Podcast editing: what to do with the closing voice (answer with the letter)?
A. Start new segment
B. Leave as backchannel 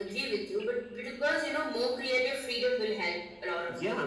A